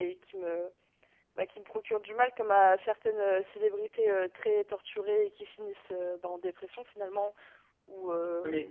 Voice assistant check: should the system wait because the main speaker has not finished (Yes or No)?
No